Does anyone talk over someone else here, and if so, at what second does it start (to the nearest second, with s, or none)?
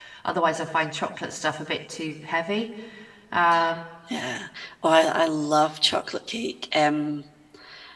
none